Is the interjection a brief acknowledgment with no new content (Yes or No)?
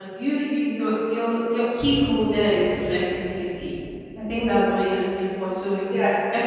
Yes